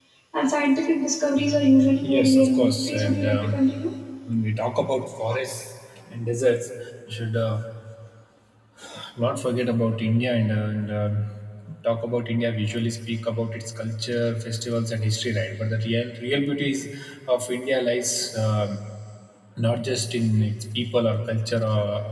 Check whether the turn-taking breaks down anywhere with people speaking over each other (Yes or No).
Yes